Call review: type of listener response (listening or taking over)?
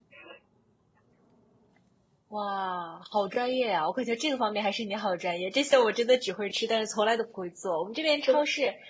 listening